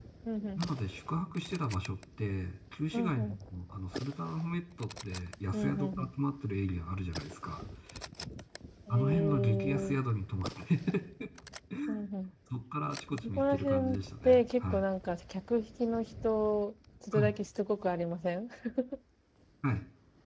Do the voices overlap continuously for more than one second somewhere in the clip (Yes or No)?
Yes